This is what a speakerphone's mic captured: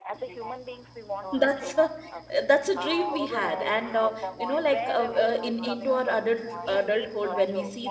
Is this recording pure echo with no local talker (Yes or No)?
No